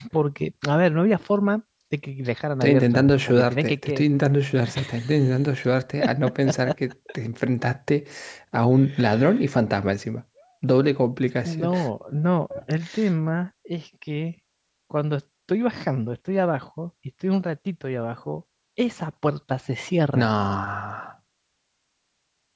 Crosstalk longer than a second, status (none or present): present